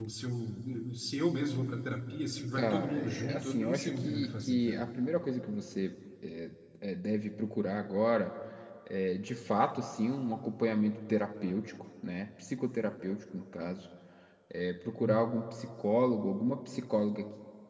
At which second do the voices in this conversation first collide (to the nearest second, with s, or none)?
3 s